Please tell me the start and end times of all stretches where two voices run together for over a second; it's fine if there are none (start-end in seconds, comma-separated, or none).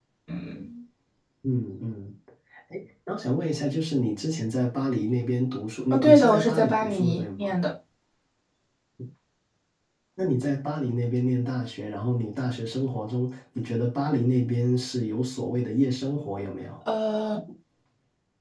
5.9-7.5